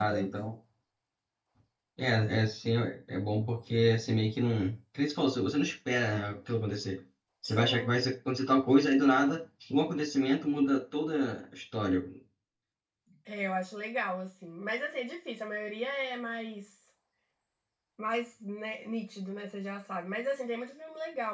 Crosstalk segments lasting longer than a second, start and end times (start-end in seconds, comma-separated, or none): none